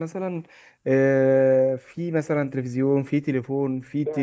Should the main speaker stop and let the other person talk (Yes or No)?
No